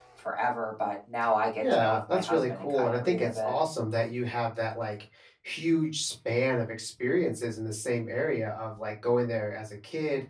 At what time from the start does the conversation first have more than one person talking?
1.6 s

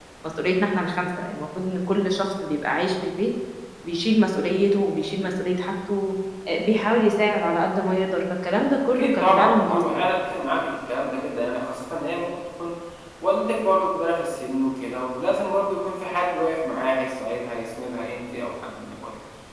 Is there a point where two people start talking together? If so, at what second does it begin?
8.9 s

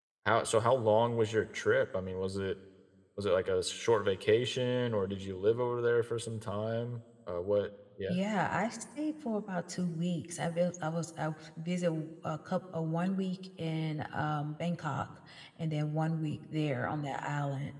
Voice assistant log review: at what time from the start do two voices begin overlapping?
none

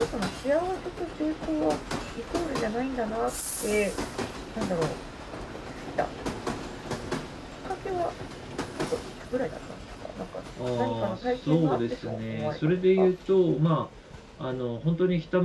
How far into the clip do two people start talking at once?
10.6 s

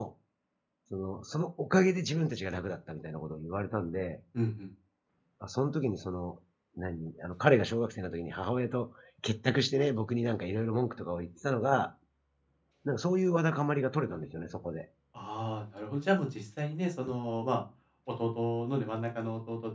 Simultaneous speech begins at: none

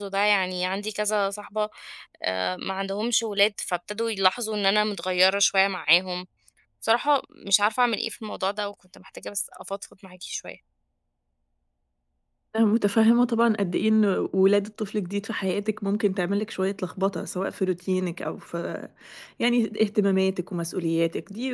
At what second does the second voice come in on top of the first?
none

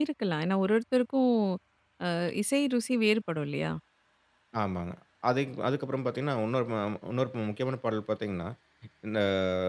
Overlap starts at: none

